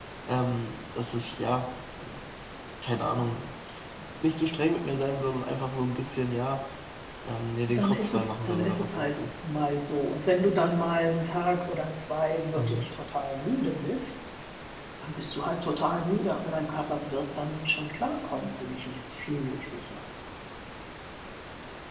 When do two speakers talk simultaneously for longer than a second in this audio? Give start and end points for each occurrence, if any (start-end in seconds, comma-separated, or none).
7.7-9.1